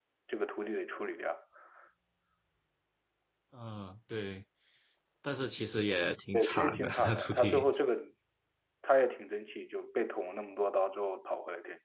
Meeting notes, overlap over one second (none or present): present